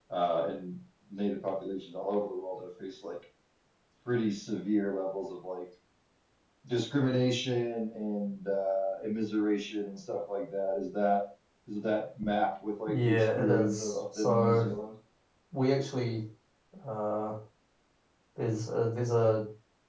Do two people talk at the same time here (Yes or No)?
Yes